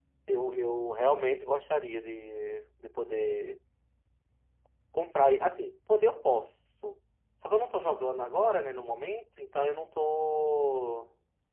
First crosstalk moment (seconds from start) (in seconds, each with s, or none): none